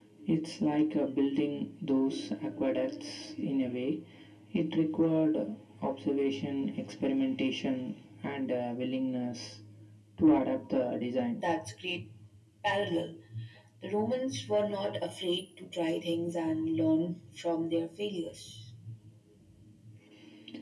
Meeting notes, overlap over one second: none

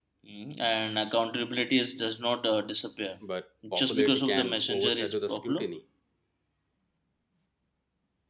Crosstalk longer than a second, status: present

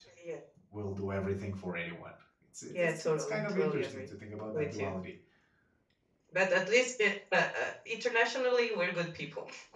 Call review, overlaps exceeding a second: present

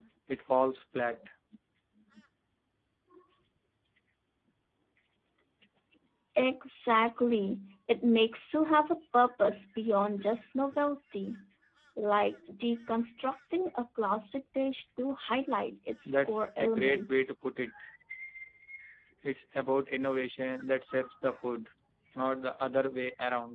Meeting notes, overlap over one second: present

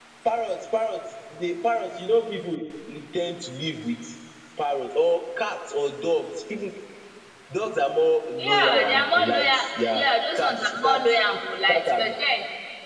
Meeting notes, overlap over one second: present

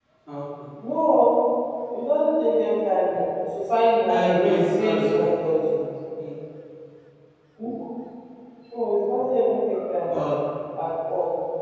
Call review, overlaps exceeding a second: present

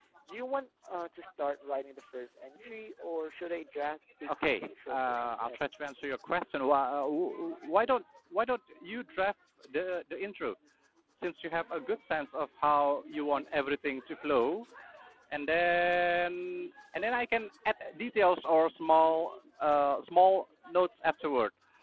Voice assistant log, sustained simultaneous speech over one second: present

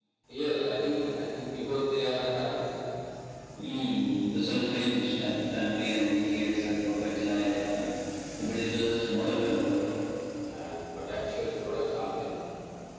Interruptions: none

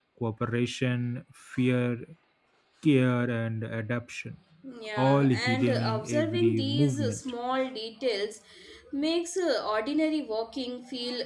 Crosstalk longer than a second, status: present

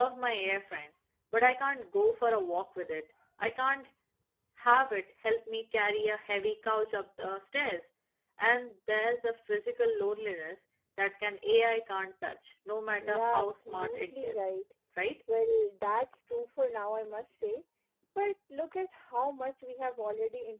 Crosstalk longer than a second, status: present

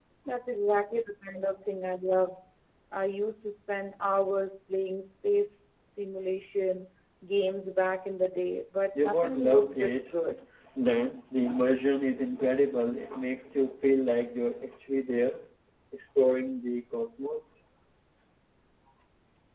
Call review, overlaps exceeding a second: present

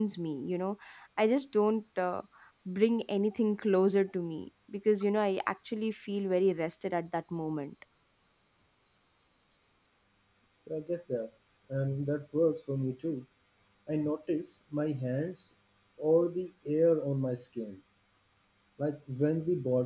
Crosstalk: none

